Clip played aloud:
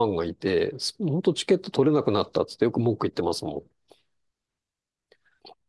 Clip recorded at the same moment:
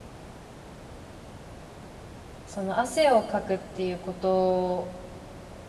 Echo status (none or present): none